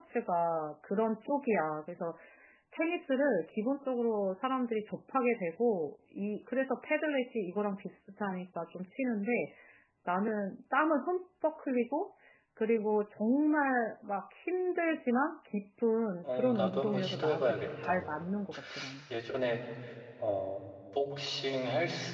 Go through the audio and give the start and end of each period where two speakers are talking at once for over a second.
16.2-18.1

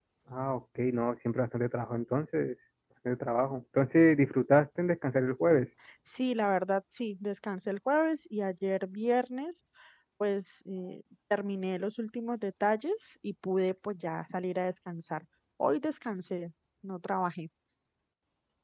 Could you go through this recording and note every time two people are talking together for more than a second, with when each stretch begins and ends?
none

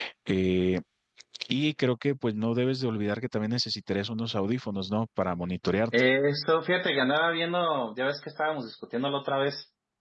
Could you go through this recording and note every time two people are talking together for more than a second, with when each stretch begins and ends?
none

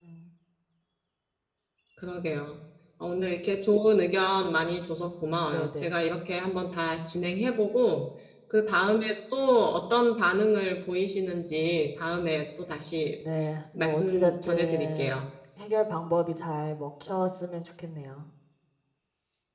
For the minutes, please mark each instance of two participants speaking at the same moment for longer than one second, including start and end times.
13.8-15.2

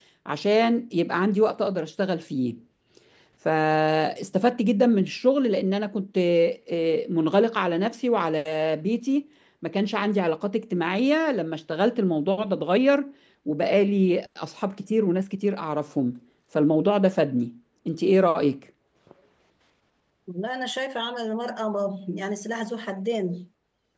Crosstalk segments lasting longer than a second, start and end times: none

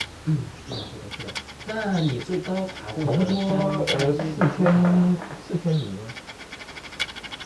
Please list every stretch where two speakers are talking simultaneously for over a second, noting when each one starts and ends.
3.0-5.2

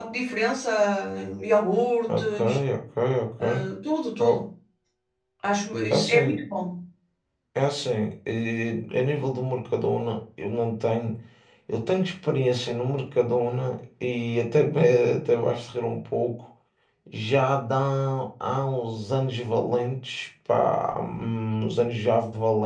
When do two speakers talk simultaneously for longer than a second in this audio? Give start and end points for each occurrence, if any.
none

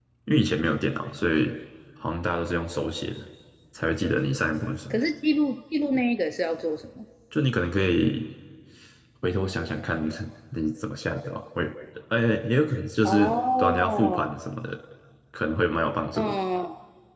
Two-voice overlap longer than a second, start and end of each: 13.0-14.3

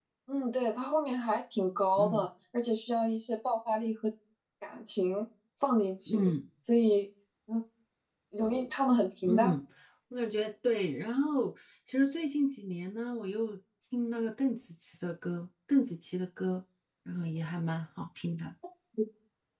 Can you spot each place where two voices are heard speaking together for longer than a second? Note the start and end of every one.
none

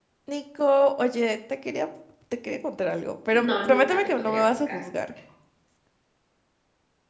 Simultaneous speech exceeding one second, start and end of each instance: 3.3-4.8

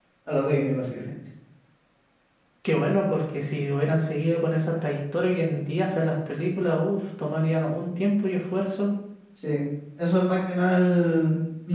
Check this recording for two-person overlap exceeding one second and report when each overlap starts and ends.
none

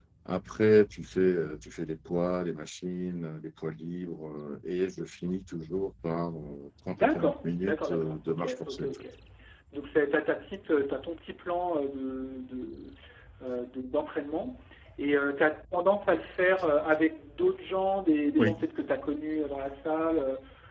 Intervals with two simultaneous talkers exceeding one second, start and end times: 7.0-8.9

